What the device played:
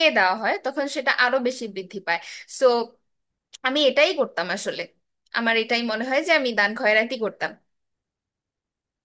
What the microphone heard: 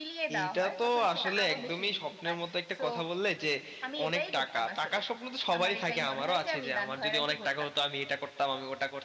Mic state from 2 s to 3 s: both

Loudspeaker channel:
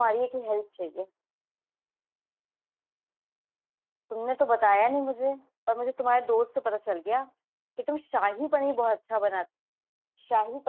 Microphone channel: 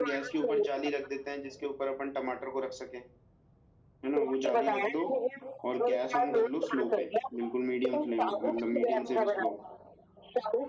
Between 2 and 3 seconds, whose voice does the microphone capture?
user only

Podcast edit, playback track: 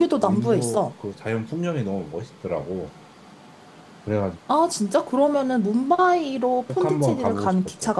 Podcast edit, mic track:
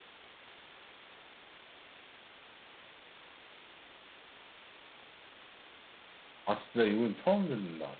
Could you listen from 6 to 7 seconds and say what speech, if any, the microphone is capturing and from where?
user only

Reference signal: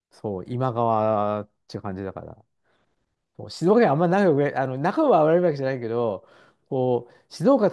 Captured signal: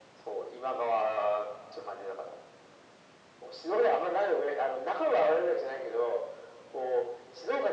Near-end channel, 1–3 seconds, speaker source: echo only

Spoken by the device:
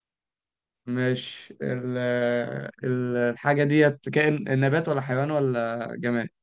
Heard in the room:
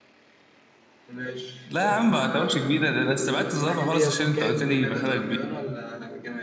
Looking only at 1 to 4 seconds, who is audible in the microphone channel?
both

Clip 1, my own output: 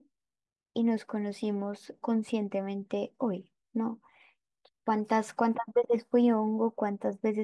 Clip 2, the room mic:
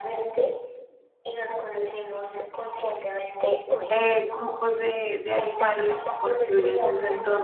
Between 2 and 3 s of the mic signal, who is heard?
echo only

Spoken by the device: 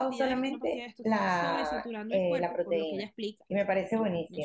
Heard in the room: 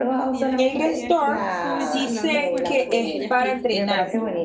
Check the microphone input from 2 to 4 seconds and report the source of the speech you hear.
both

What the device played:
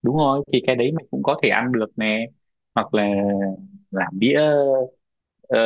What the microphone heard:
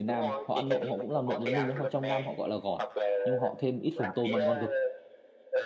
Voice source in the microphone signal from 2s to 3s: both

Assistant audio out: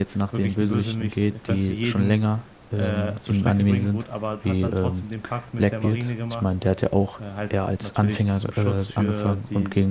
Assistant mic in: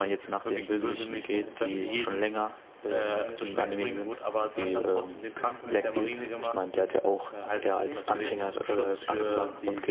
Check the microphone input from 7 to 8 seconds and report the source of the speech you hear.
both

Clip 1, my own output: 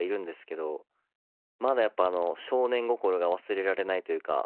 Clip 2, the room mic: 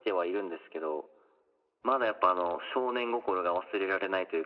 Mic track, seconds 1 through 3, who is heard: echo only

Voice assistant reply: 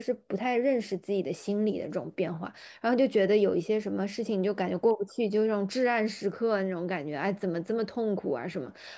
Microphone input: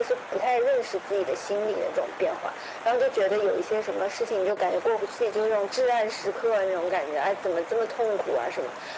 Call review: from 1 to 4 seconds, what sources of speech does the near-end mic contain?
echo only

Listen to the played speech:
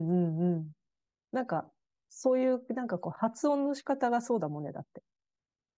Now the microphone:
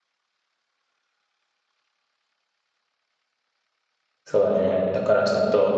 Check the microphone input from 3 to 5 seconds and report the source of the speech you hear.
user only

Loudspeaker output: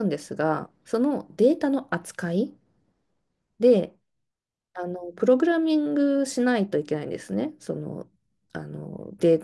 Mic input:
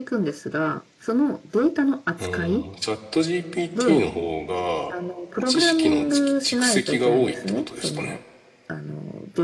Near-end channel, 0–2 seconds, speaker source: echo only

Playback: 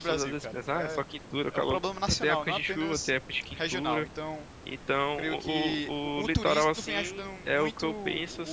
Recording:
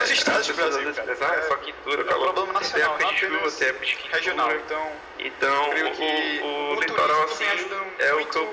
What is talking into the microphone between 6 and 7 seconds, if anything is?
echo only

